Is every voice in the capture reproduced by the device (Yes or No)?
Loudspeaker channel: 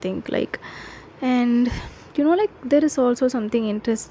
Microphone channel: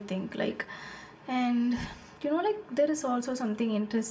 Yes